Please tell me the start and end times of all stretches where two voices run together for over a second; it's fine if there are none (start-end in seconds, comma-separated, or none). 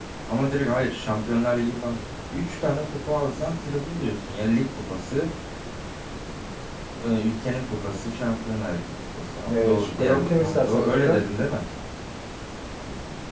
9.5-11.2